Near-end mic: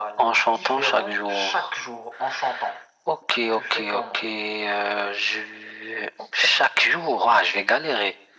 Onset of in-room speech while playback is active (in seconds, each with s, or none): none